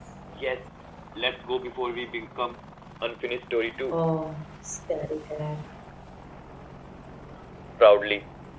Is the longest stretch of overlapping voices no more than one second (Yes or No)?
Yes